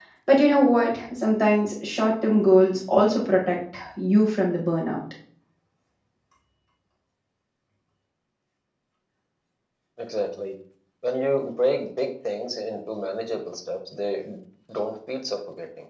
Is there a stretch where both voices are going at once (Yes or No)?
No